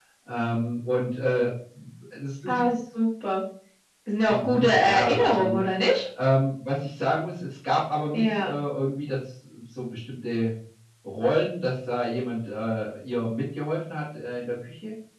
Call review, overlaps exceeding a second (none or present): present